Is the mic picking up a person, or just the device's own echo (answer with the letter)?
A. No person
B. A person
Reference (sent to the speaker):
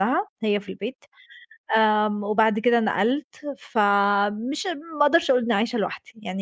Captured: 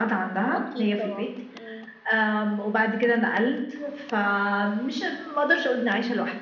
B